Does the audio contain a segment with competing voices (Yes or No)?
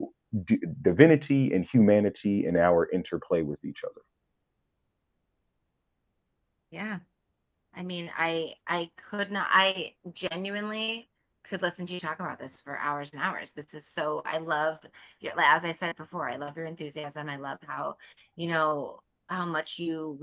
No